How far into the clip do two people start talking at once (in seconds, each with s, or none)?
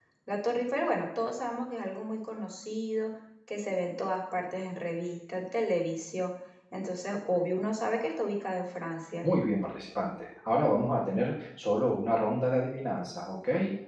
none